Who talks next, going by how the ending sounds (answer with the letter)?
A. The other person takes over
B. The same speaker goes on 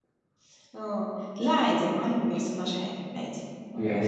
A